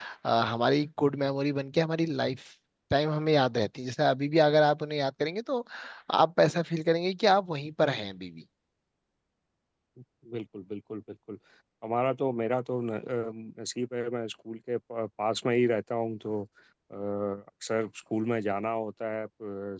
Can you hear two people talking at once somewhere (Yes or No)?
No